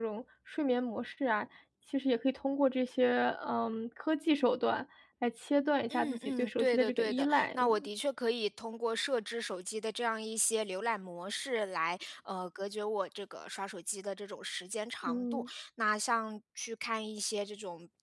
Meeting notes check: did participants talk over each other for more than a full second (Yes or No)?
Yes